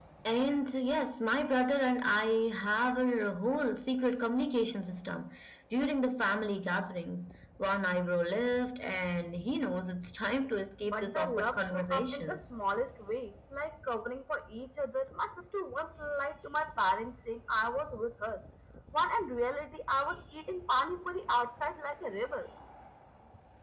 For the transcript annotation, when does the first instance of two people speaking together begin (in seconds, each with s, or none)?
10.9 s